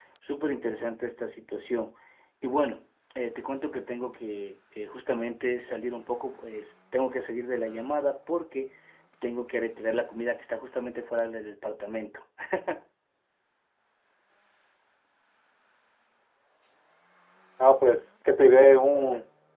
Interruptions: none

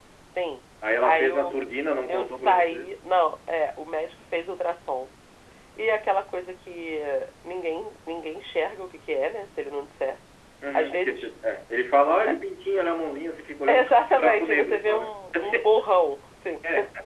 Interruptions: present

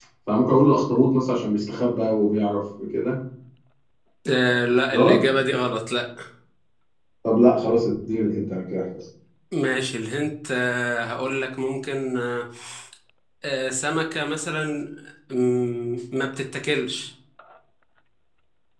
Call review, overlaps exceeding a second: none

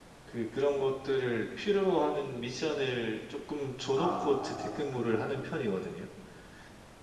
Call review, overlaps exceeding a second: present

